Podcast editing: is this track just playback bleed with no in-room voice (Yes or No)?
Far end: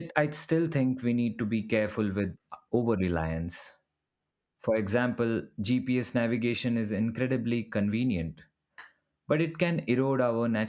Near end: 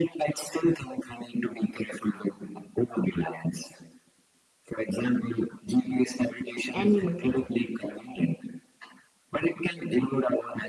No